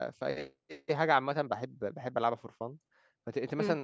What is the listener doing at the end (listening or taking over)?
listening